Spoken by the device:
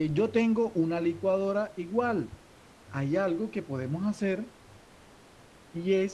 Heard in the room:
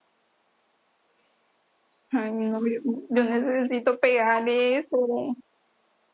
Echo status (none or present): none